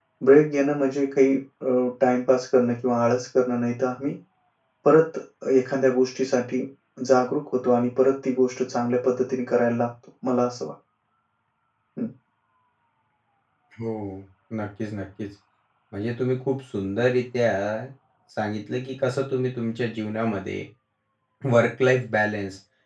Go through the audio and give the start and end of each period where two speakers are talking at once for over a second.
none

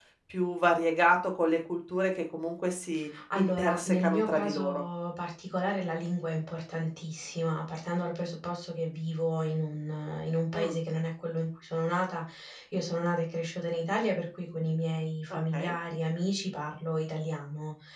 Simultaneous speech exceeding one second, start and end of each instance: 3.4-4.8

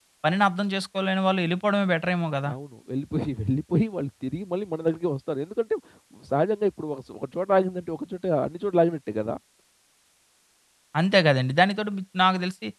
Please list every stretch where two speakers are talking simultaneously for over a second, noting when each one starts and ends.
none

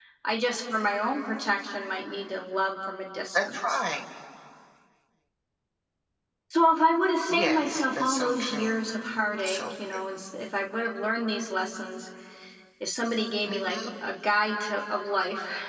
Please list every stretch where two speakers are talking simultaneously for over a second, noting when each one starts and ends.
7.3-8.8

